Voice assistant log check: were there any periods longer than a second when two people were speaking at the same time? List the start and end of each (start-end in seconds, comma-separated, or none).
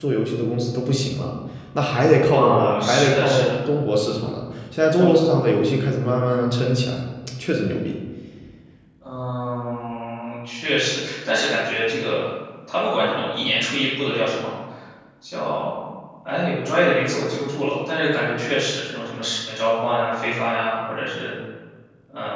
2.3-3.5